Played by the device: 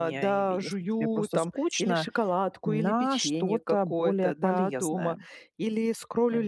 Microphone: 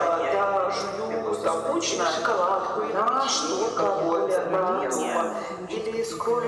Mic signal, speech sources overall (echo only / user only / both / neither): both